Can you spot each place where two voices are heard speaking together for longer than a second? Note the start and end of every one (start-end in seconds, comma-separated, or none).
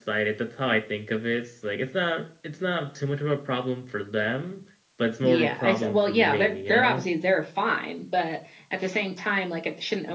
5.2-7.0